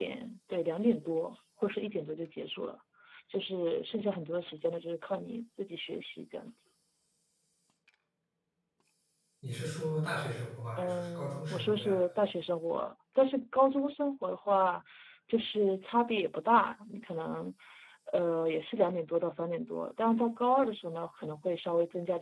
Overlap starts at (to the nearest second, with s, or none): 11 s